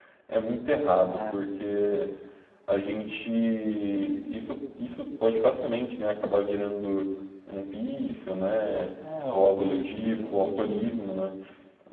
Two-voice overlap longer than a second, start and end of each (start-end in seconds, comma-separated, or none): 9.3-10.9